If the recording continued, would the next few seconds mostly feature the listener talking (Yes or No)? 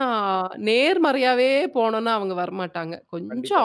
Yes